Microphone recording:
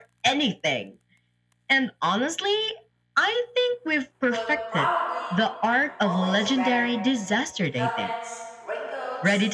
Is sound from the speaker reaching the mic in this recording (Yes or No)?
Yes